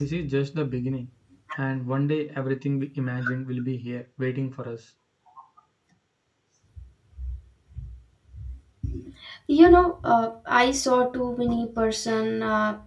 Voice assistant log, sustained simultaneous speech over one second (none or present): none